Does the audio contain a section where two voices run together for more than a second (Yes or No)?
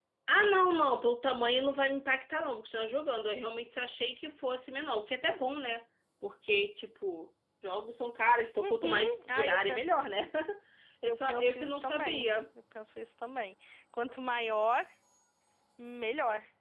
Yes